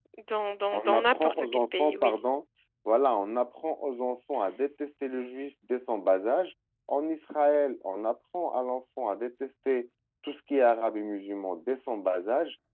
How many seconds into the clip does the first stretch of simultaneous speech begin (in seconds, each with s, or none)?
0.7 s